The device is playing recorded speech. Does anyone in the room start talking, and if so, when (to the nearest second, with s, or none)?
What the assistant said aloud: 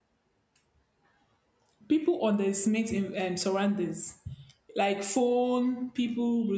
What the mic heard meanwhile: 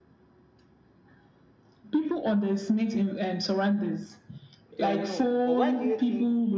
5 s